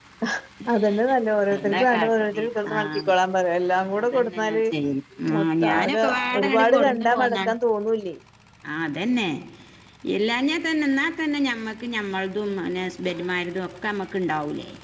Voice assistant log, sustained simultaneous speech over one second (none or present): present